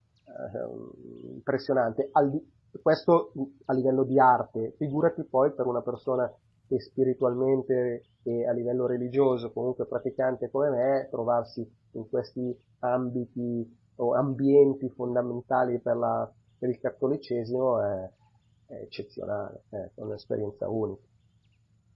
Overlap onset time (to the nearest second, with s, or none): none